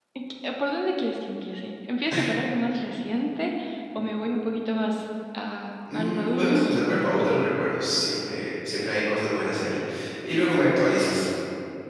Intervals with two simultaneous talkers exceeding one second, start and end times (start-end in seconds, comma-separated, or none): 5.9-7.3